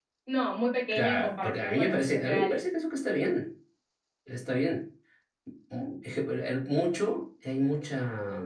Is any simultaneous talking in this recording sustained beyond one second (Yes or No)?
Yes